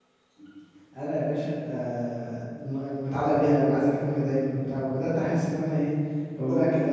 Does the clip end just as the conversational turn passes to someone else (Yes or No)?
No